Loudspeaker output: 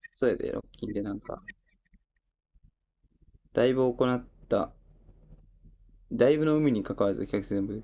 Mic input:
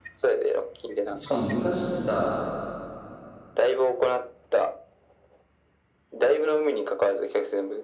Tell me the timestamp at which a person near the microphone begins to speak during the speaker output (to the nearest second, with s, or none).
1 s